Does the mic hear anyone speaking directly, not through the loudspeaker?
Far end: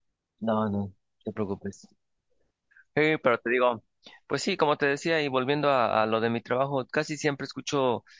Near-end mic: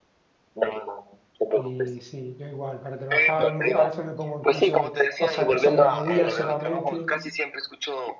Yes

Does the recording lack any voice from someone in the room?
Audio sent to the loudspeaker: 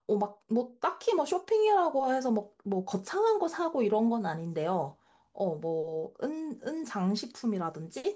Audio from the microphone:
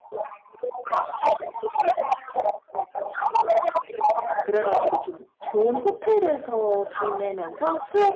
No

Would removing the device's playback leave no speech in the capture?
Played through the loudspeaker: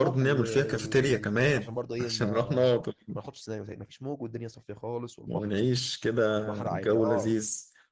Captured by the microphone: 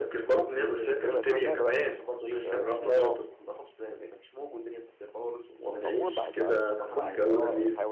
No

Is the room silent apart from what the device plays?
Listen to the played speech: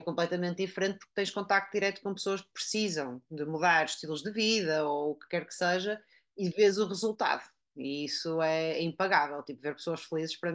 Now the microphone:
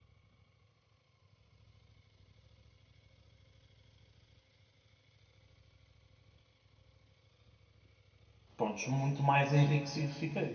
No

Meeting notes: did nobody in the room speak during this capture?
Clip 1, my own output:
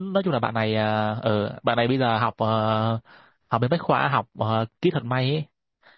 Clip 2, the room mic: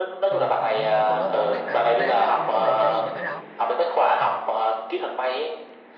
No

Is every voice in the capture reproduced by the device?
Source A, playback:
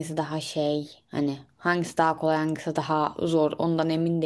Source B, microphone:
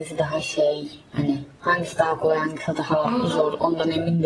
No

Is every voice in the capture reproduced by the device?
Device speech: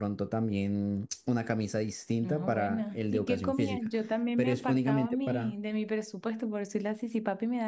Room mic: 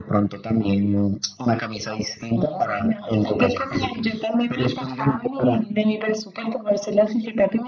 Yes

